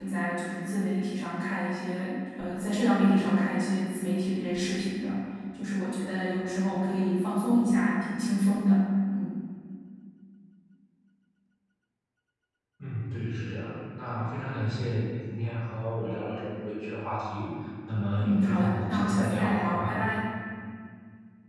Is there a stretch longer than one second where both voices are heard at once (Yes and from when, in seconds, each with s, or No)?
Yes, from 18.2 s